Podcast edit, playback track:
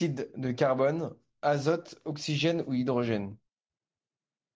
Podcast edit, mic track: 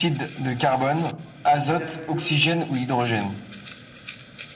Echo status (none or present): present